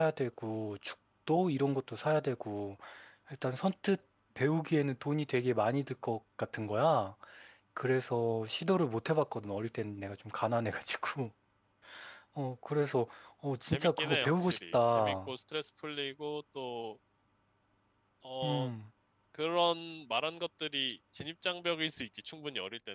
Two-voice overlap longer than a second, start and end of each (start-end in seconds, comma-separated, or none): 13.7-15.3